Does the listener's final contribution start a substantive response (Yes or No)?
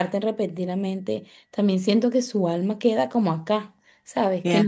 Yes